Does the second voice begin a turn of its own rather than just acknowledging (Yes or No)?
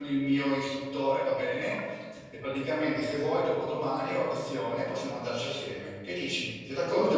Yes